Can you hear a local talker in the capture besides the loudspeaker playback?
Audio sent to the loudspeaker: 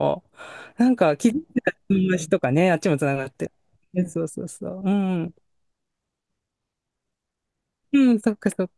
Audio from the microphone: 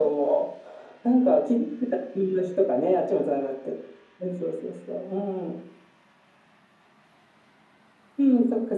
No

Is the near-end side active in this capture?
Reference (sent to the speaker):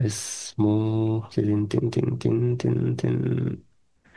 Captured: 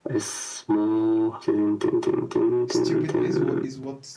Yes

